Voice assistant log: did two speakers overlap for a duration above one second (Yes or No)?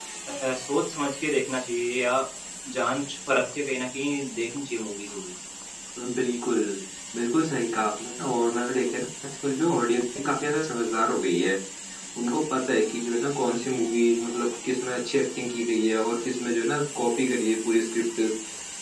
No